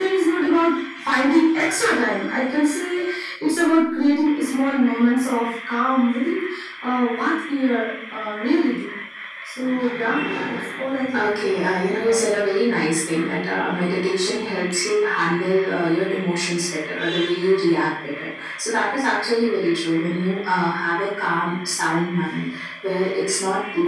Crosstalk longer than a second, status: present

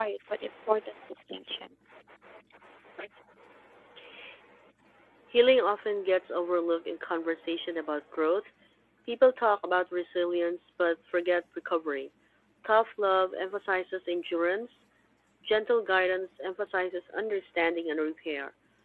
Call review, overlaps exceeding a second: none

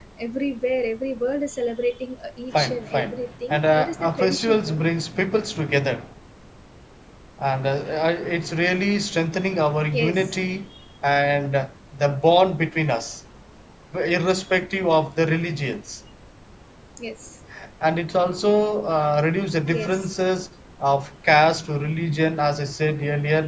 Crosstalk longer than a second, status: present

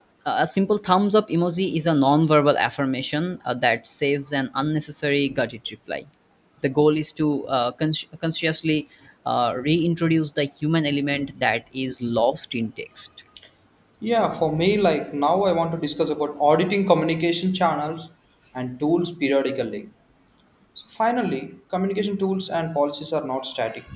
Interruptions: none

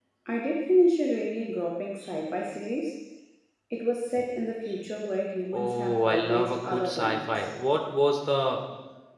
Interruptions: present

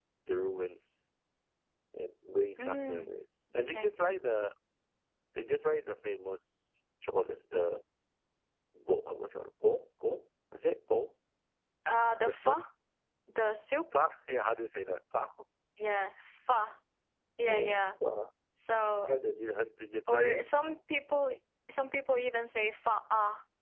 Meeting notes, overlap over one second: none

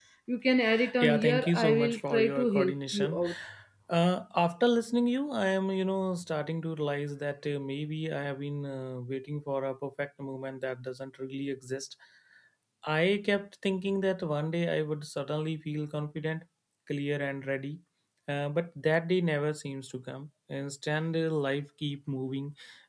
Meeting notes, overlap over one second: present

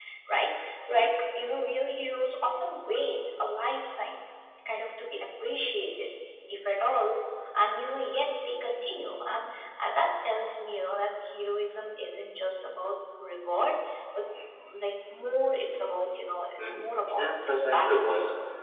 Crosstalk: present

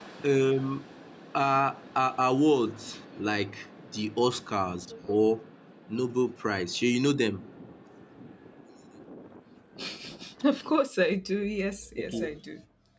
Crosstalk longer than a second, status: none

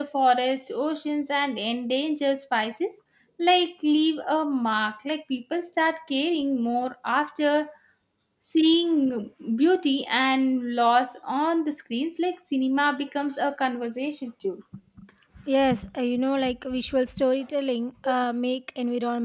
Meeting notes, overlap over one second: none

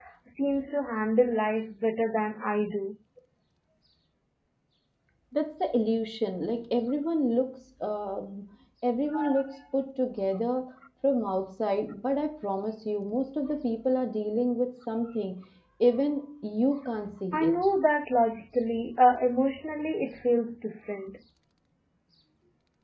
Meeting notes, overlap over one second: none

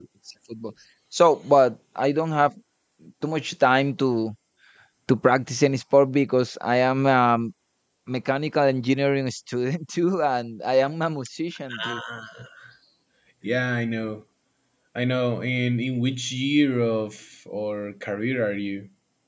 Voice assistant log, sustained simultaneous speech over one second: none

